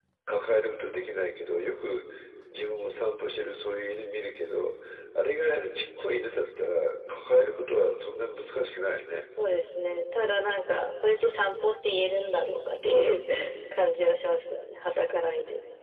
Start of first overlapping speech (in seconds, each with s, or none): none